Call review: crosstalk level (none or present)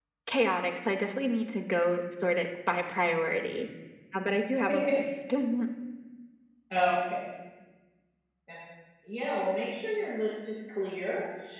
none